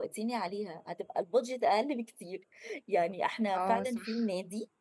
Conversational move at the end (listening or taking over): listening